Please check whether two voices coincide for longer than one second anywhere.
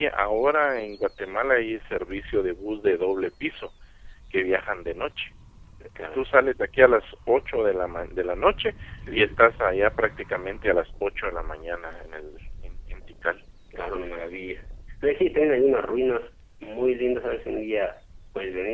No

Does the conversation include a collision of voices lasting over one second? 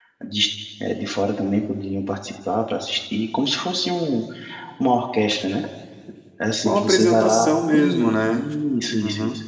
Yes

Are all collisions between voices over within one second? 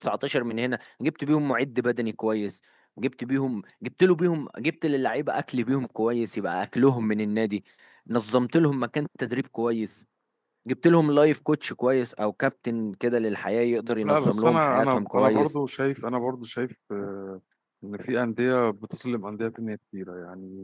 No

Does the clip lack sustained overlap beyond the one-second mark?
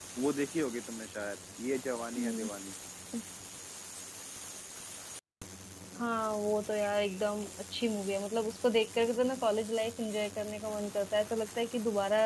Yes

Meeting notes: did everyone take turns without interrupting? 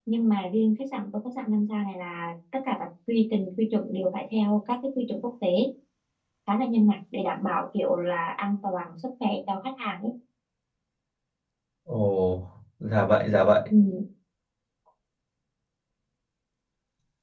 Yes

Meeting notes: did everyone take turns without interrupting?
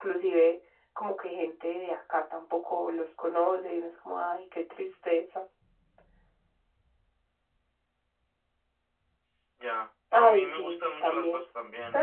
No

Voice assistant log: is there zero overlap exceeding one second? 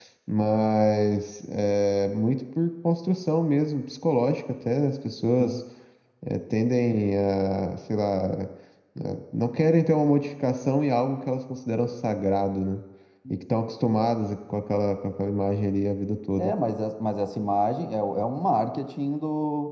Yes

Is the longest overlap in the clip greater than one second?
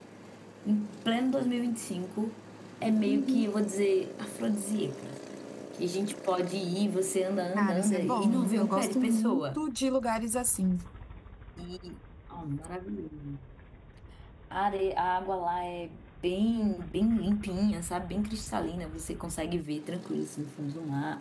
Yes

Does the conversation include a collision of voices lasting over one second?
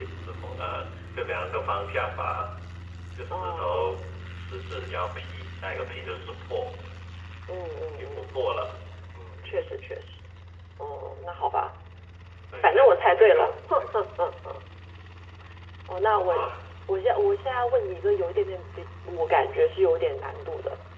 Yes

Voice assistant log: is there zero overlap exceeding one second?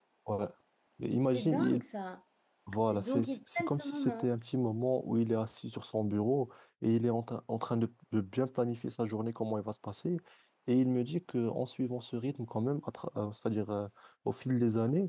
No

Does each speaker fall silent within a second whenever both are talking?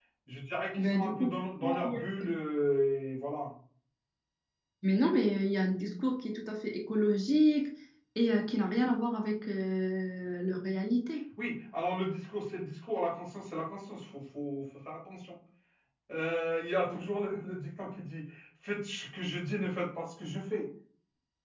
No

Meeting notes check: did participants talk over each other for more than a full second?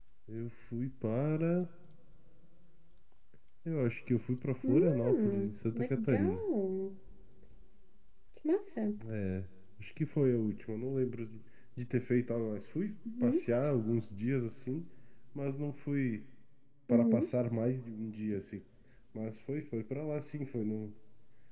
Yes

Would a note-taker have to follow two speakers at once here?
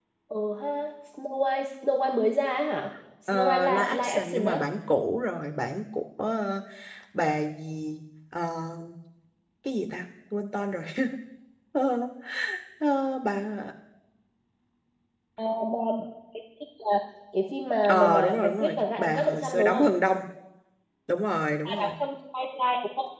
Yes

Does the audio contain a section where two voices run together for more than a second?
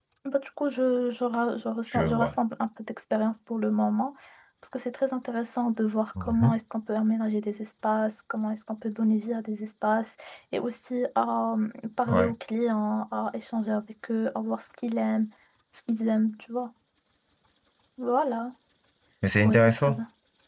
No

